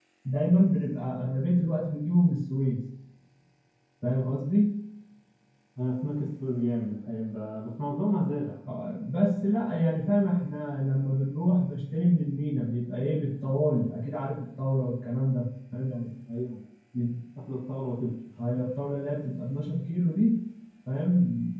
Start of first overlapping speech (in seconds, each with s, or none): none